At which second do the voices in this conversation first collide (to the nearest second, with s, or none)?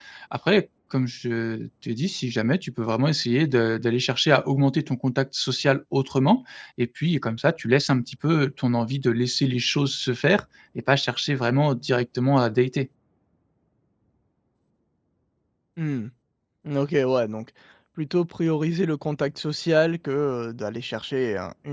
none